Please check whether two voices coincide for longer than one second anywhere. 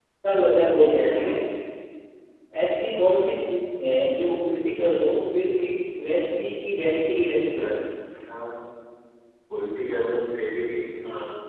No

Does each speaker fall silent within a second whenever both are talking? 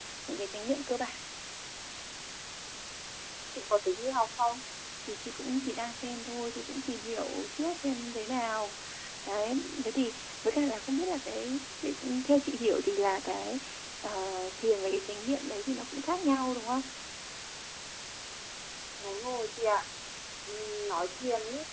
Yes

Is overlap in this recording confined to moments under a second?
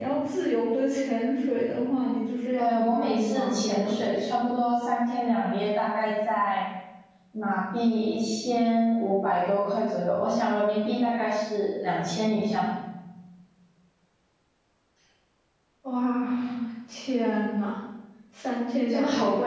No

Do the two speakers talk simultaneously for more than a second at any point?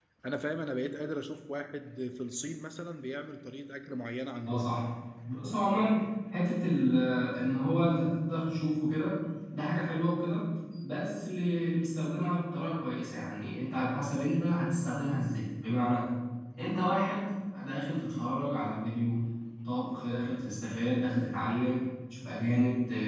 No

